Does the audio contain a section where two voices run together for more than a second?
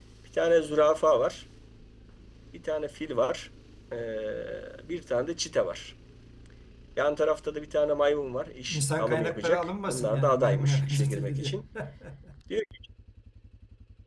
Yes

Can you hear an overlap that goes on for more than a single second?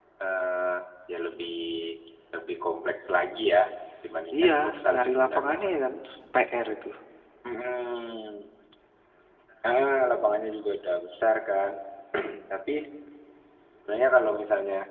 Yes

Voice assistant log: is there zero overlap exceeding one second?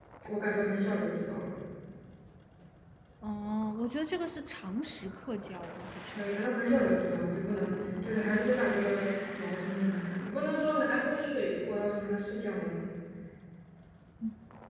Yes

